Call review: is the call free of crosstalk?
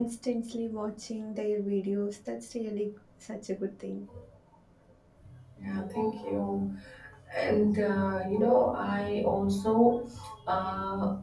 Yes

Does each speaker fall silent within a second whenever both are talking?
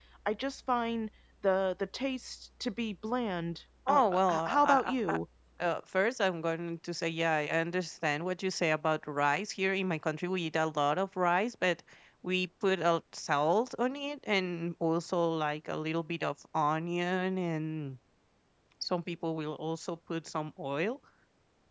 No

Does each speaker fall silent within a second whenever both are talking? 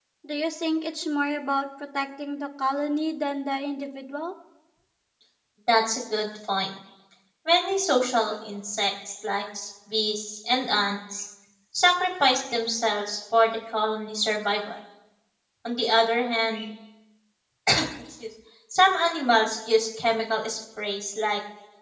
Yes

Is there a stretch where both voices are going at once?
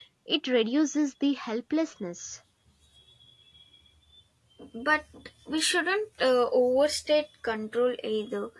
No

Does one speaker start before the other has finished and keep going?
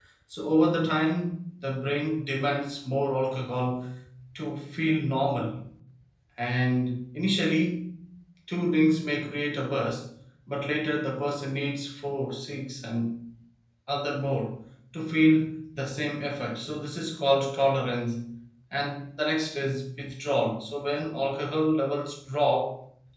No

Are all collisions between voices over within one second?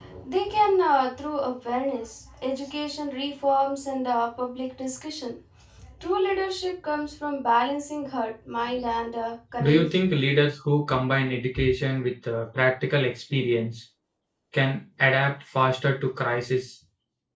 Yes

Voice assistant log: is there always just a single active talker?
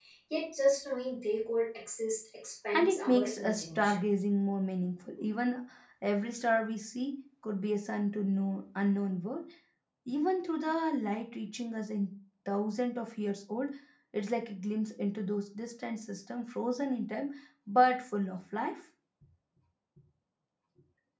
No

